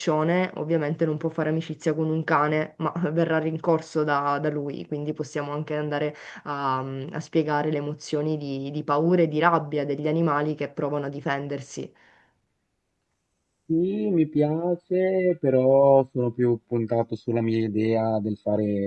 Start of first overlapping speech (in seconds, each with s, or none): none